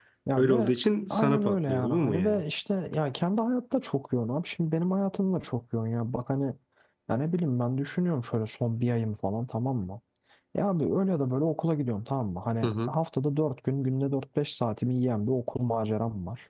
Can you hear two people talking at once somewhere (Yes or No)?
Yes